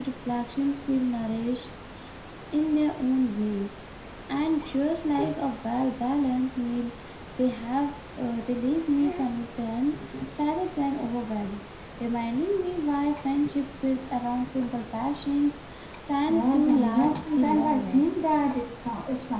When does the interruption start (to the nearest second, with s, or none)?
16 s